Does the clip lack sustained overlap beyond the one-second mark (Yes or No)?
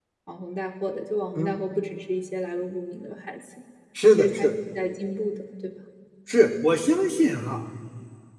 Yes